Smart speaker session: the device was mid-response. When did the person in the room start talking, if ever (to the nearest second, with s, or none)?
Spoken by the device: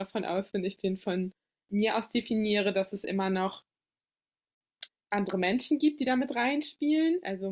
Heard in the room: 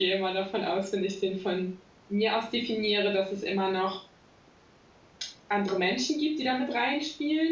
none